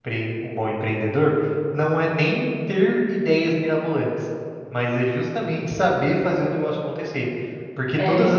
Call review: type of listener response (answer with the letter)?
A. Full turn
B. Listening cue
B